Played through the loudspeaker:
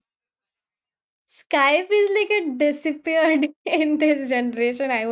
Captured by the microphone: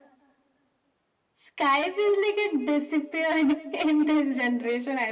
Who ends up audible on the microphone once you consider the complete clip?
echo only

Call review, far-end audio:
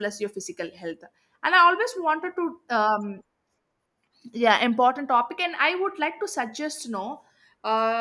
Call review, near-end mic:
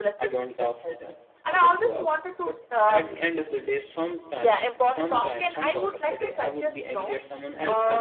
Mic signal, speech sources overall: both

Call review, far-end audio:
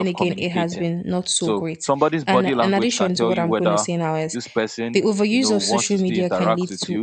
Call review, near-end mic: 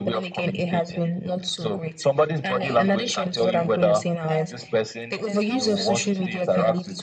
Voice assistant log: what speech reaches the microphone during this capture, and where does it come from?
both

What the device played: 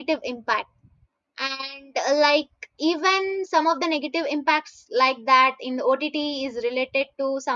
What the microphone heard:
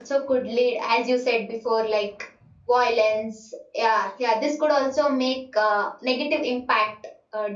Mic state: user only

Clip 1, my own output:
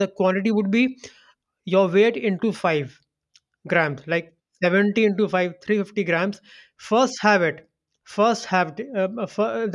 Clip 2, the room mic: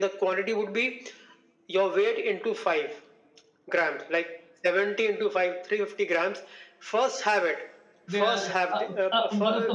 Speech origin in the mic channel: both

